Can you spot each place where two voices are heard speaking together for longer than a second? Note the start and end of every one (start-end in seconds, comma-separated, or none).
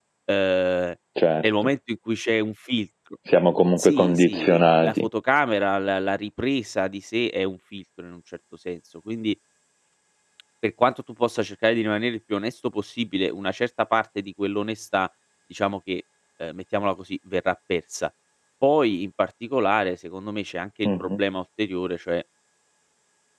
3.8-5.1